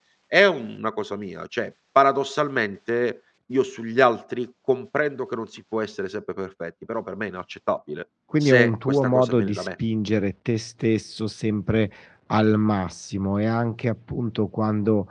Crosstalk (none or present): present